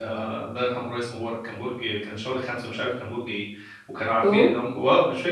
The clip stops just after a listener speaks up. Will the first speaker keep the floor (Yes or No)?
Yes